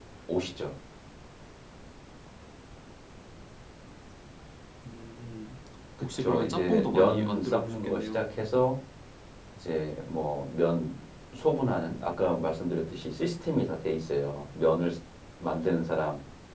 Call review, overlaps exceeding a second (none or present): present